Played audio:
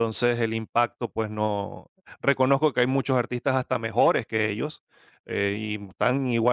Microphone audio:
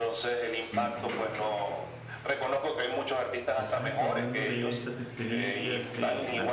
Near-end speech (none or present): present